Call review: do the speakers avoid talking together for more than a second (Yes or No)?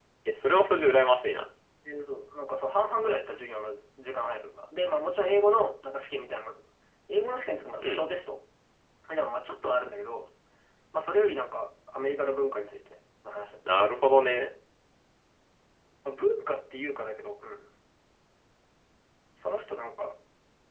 Yes